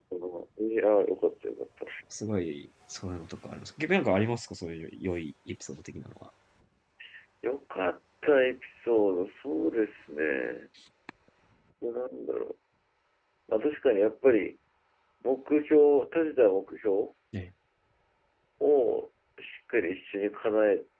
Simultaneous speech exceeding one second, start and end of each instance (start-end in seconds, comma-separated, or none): none